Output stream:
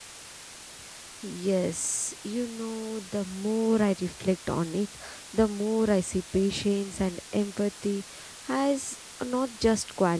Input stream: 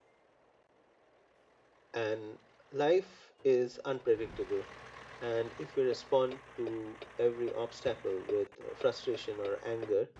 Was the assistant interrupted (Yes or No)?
Yes